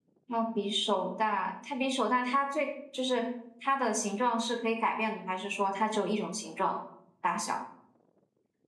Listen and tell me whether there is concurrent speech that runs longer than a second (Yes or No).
No